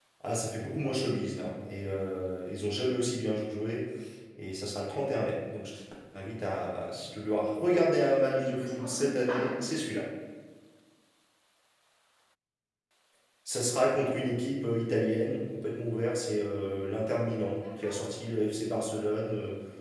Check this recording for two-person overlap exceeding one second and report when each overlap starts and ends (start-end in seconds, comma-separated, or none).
8.2-9.5